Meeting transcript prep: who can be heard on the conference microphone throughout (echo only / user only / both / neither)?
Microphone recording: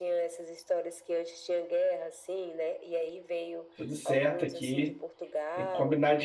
both